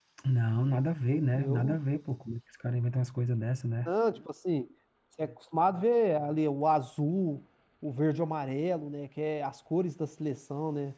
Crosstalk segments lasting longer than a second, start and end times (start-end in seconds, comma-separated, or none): none